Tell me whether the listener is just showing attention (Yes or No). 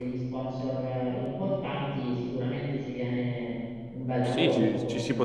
No